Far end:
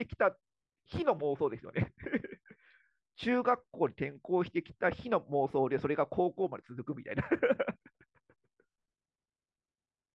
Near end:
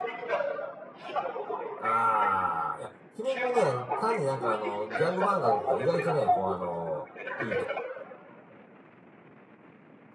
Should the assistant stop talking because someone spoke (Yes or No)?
Yes